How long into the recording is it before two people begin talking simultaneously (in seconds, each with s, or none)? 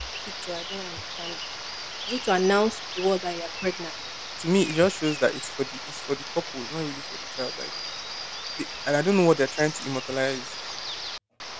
none